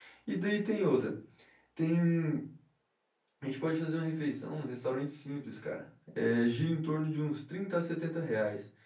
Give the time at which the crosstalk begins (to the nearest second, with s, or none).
none